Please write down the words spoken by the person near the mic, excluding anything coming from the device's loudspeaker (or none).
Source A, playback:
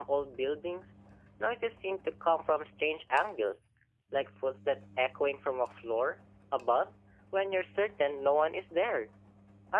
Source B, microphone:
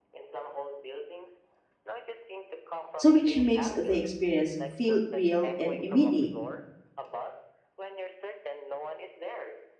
So, which makes the experience feel real and immediate.